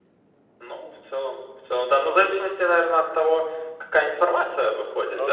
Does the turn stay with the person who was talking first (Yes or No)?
Yes